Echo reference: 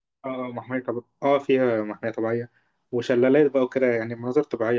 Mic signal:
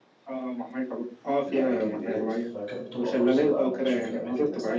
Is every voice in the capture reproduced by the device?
No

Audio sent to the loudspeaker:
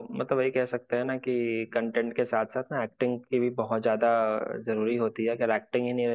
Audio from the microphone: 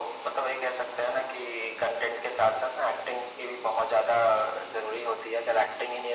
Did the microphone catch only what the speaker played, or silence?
Yes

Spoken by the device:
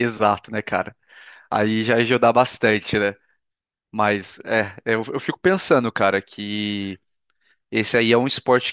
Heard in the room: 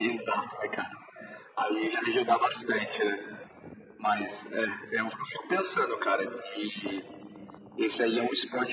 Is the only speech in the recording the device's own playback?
Yes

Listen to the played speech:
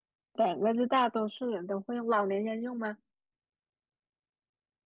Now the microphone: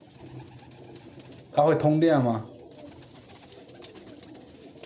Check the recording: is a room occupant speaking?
Yes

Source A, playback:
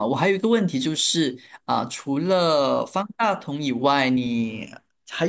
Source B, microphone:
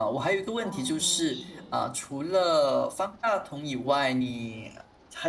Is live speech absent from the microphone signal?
No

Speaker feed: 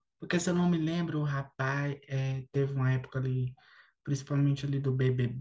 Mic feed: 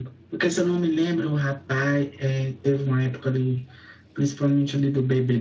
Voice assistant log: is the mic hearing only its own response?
Yes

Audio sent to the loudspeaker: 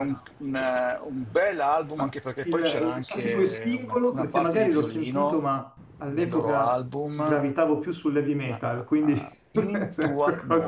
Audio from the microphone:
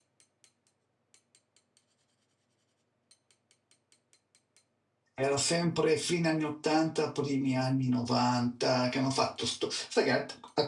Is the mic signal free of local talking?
No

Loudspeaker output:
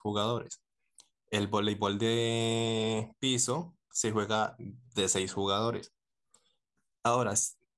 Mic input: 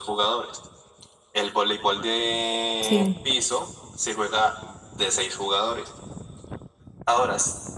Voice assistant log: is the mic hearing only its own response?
No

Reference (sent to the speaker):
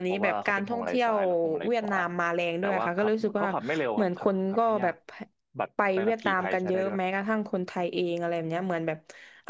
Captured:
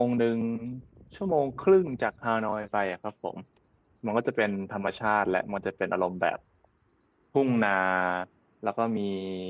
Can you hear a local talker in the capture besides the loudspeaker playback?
Yes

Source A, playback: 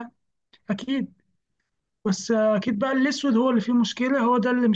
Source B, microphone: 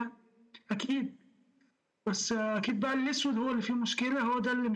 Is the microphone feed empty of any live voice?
Yes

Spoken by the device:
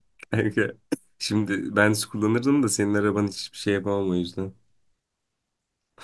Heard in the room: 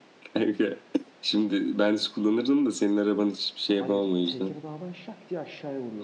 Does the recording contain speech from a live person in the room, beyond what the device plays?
Yes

